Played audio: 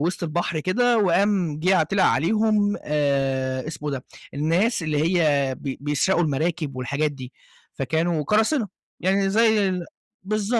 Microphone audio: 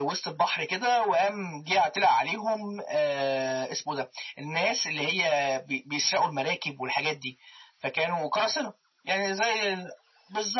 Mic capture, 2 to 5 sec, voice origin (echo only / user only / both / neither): echo only